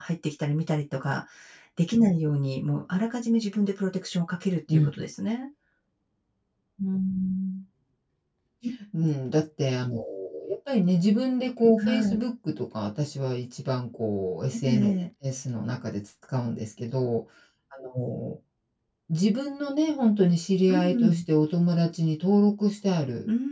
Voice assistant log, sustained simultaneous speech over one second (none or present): none